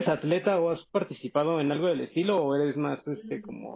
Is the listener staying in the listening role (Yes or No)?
No